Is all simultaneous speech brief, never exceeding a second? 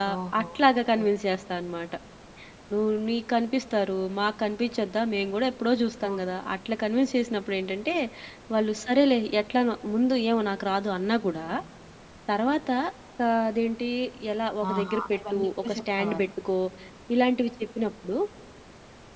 No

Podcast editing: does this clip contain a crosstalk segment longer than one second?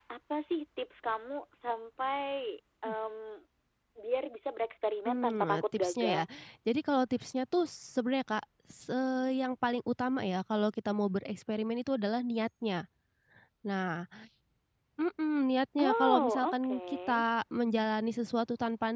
Yes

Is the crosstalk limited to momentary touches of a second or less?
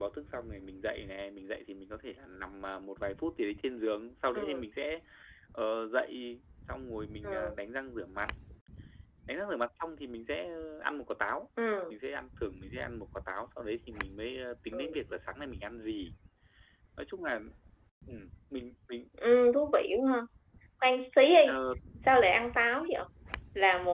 Yes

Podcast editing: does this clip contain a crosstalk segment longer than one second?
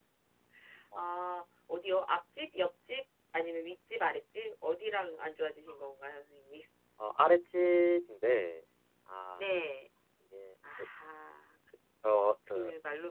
No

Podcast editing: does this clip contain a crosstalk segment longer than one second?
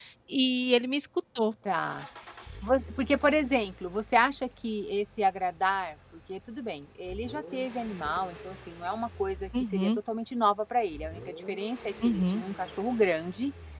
No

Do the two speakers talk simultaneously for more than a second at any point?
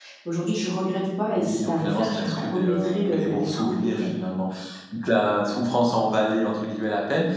Yes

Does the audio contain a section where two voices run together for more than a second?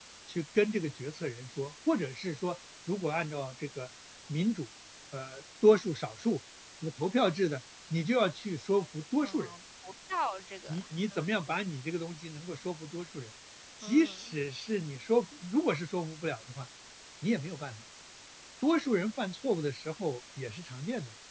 No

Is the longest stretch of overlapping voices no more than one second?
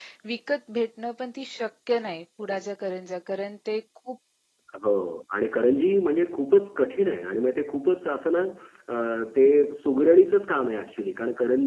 Yes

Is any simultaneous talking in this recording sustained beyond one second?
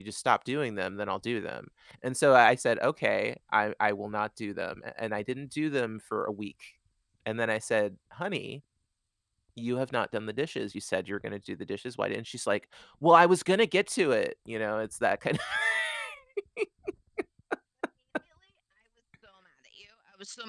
No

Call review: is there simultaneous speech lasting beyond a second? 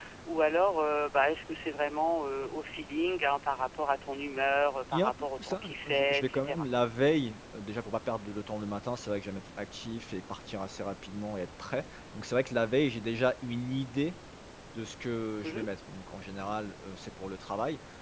Yes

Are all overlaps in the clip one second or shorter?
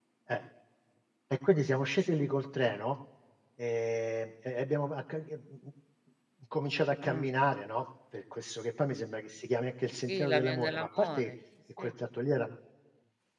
No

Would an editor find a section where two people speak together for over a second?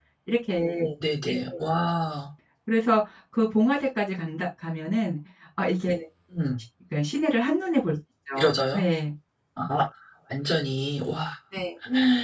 No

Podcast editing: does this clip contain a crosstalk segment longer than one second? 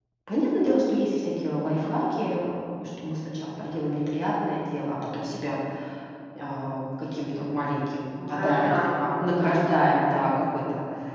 Yes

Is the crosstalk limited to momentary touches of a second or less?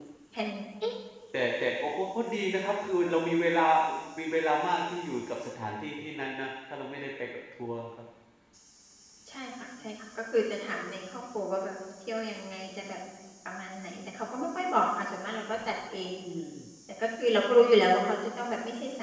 Yes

